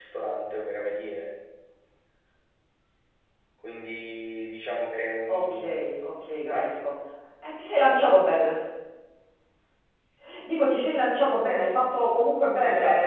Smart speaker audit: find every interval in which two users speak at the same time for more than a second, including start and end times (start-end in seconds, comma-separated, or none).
none